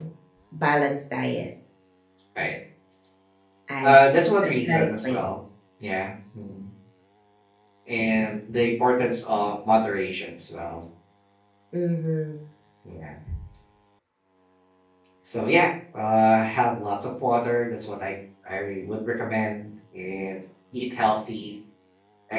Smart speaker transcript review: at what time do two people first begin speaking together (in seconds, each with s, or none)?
3.8 s